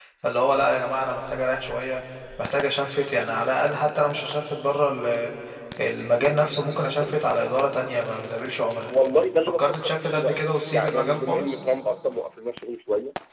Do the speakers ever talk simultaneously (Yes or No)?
Yes